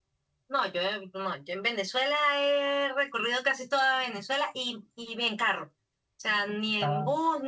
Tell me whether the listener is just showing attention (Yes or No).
Yes